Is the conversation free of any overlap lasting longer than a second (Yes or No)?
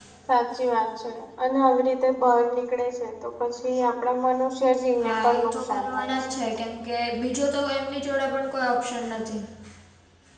No